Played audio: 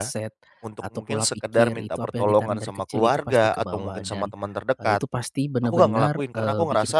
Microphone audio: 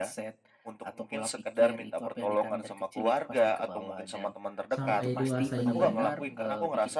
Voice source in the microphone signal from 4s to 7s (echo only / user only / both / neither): both